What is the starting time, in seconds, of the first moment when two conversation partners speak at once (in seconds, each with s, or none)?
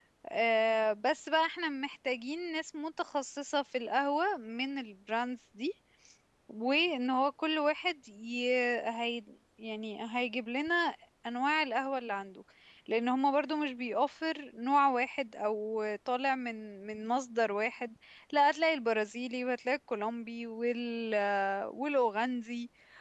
none